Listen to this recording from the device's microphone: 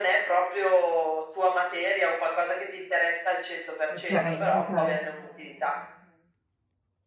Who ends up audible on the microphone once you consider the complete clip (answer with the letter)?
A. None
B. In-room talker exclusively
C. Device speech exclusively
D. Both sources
D